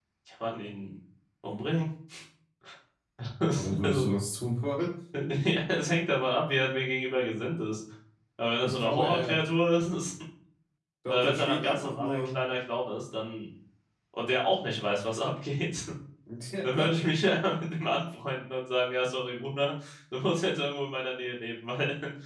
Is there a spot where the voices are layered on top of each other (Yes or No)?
Yes